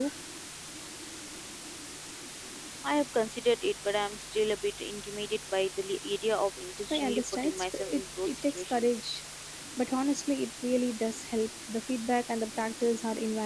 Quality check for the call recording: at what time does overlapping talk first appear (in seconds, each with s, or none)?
6.9 s